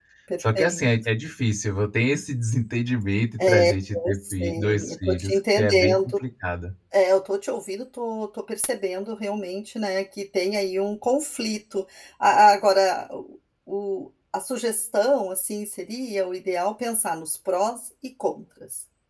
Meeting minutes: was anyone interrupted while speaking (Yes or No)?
Yes